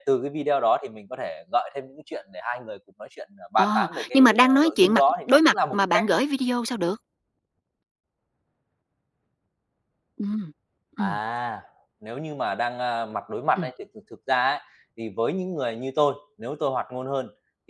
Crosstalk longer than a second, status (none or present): present